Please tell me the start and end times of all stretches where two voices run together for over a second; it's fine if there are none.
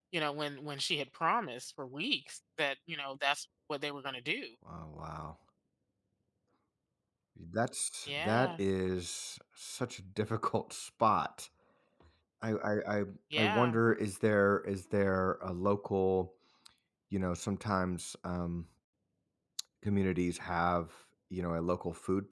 none

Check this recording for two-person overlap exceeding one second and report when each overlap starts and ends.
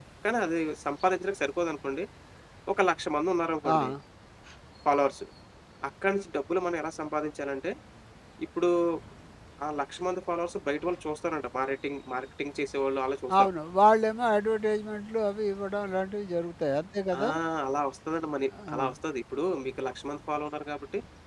none

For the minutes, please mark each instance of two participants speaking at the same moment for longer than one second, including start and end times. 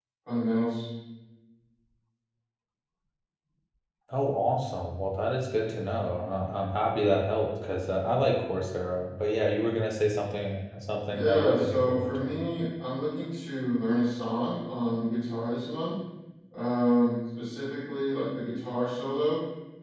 11.1-12.4

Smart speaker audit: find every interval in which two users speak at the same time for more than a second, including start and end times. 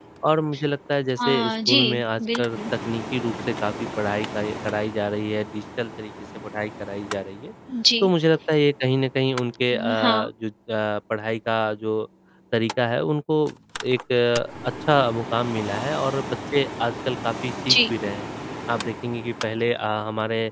1.2-2.6

